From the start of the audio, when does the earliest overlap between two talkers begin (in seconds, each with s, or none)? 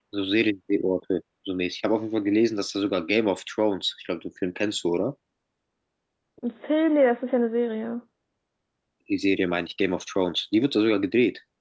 none